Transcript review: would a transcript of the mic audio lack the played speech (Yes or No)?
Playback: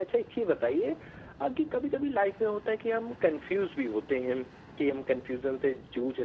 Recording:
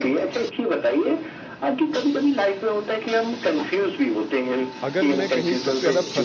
No